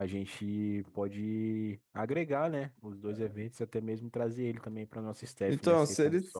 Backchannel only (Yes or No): No